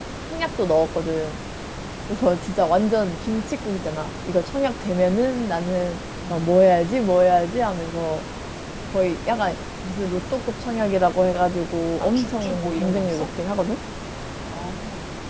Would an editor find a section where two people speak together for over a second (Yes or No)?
Yes